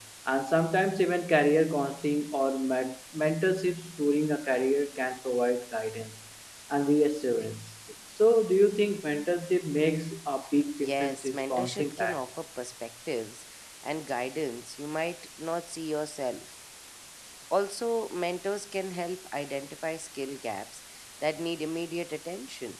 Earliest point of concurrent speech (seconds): 10.8 s

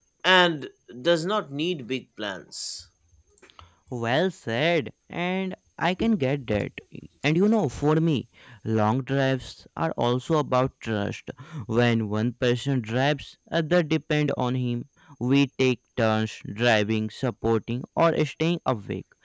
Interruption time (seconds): none

